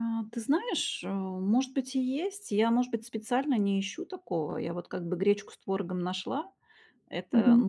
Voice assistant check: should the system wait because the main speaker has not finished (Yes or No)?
Yes